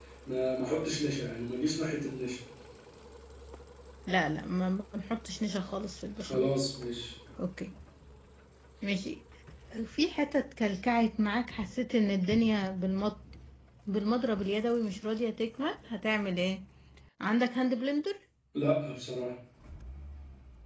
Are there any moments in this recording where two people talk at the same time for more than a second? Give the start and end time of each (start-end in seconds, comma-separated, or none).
none